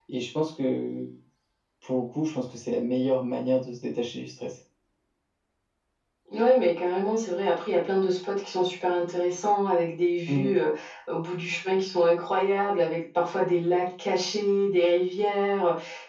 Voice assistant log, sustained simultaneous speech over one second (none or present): none